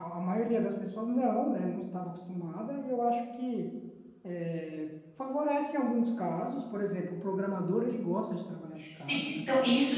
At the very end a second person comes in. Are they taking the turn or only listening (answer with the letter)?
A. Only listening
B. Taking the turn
B